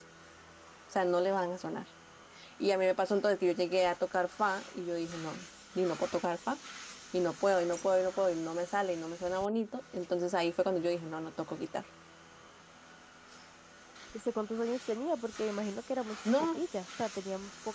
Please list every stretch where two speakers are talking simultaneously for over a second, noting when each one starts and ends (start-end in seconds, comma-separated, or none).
none